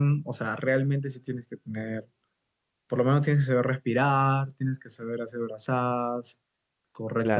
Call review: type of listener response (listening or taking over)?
taking over